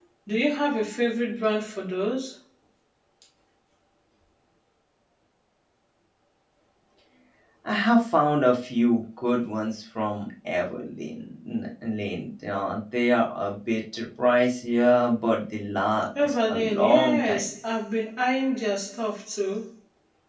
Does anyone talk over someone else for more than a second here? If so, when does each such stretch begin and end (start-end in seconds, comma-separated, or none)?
16.2-17.5